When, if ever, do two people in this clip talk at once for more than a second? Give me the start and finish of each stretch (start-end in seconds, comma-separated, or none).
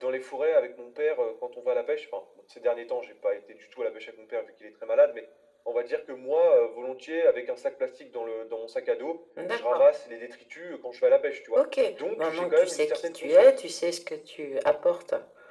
12.2-13.5